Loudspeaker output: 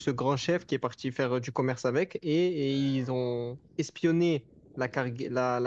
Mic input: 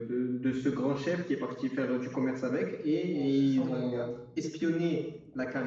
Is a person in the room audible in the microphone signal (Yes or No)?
Yes